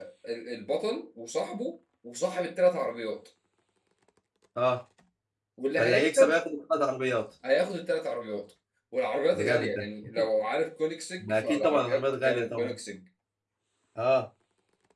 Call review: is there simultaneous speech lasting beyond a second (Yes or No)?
Yes